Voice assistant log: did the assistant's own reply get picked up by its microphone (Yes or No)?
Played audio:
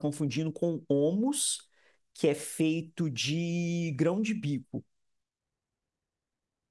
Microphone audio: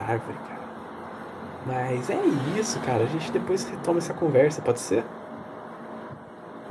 No